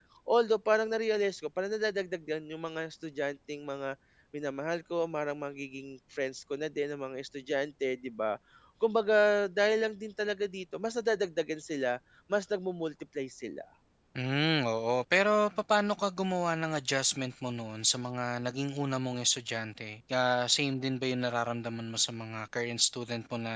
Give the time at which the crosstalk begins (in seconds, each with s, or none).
none